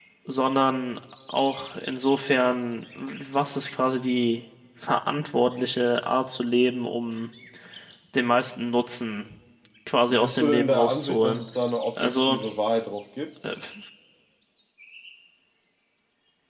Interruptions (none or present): present